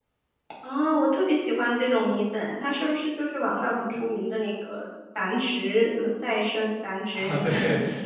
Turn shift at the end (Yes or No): Yes